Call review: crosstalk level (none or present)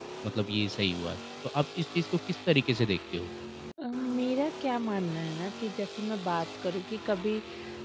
none